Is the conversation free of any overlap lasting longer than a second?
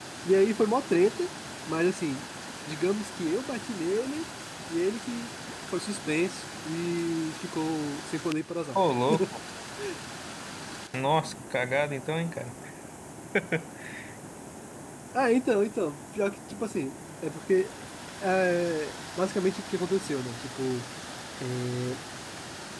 Yes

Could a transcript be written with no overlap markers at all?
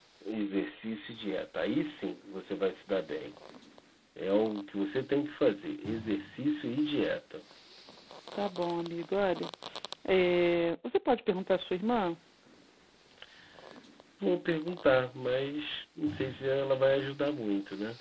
Yes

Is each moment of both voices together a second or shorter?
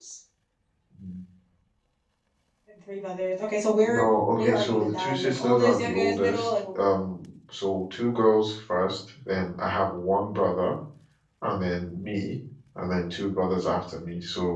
No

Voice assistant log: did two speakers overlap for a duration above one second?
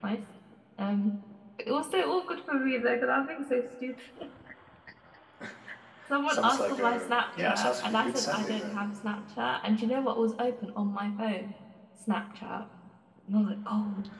Yes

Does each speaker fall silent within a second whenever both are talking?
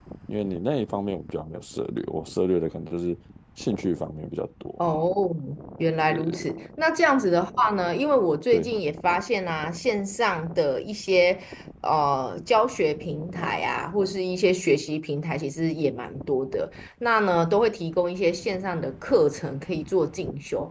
Yes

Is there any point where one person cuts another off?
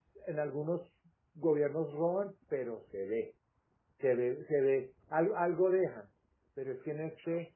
No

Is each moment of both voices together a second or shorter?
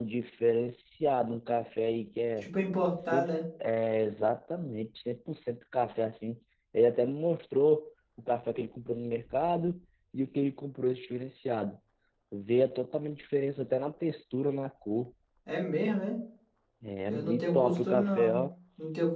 No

